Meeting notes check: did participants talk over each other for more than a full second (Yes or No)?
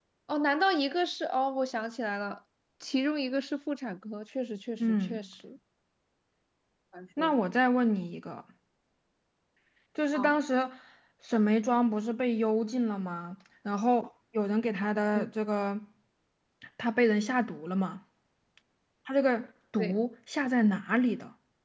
No